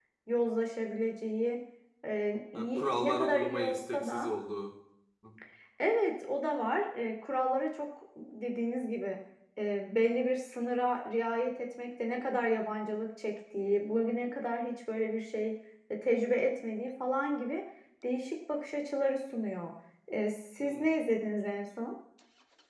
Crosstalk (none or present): present